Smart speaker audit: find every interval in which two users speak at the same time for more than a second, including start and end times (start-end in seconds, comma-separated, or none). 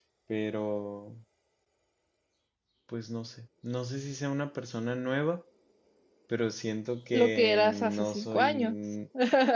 7.1-8.8